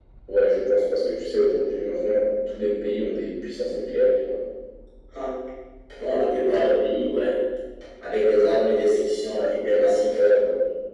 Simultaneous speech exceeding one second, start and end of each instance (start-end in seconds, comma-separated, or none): none